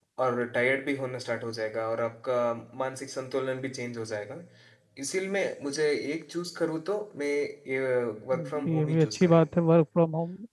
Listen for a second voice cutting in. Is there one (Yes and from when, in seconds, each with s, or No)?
Yes, from 8.3 s